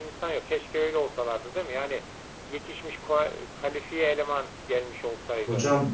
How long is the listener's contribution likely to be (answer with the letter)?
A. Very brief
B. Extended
B